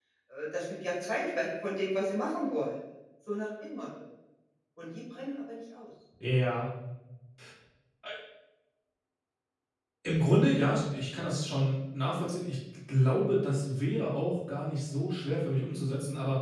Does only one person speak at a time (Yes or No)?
Yes